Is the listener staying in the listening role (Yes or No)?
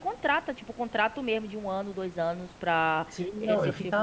No